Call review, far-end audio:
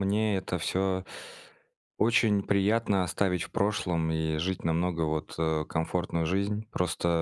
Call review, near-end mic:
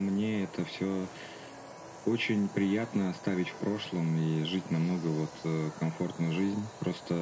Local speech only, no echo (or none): none